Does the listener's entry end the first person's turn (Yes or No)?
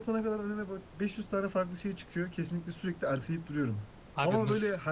No